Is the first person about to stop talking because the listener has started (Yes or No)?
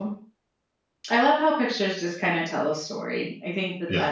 No